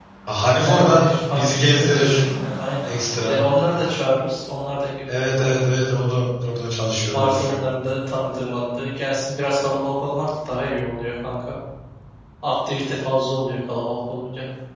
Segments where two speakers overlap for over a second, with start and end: 0.7-2.3

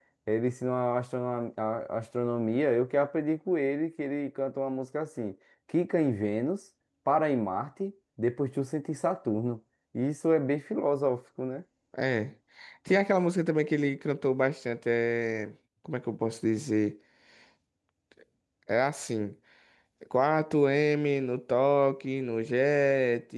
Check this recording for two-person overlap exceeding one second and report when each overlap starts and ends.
none

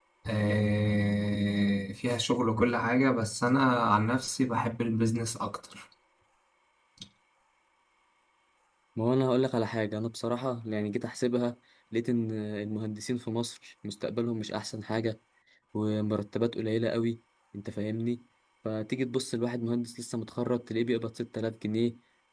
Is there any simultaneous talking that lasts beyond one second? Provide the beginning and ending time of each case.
none

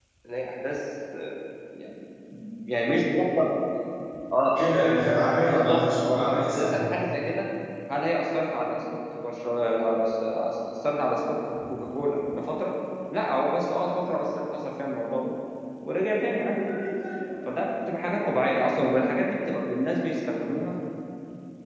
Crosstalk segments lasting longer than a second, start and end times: 5.4-6.8

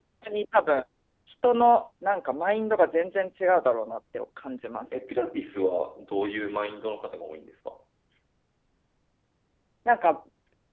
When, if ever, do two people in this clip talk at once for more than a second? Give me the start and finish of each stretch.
none

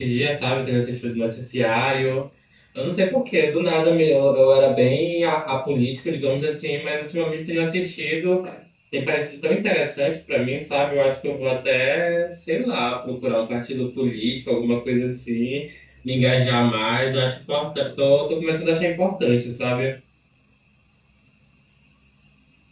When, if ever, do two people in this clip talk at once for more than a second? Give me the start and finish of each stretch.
none

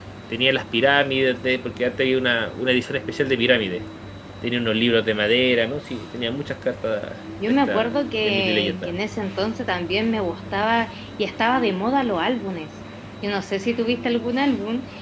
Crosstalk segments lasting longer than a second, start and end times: 7.4-8.9

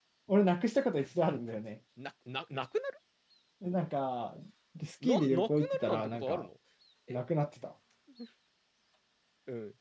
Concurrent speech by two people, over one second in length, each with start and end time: 5.0-6.5

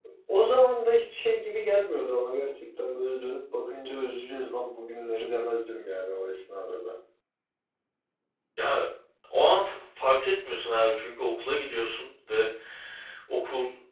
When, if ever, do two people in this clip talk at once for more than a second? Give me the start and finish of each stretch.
none

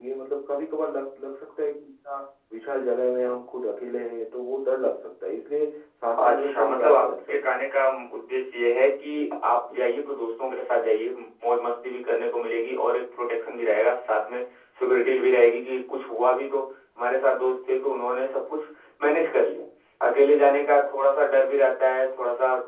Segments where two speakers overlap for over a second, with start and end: 6.2-7.5

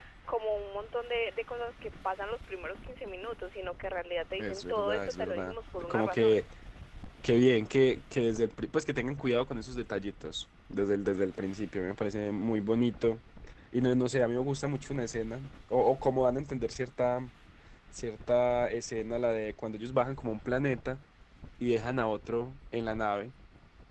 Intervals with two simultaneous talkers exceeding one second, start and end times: 4.4-6.4

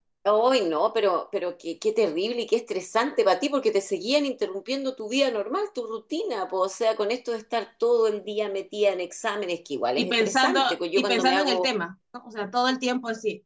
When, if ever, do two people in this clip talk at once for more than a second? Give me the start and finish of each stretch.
10.0-11.7

